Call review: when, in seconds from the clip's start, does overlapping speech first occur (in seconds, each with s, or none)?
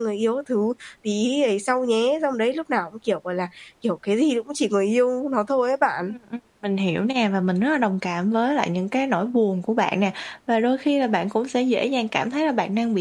none